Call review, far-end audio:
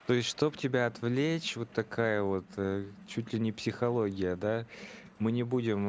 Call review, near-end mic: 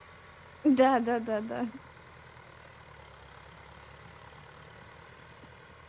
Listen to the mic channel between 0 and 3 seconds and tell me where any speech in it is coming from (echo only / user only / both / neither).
user only